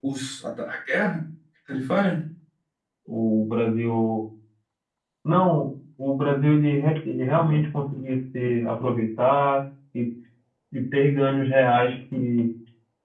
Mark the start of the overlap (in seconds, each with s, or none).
none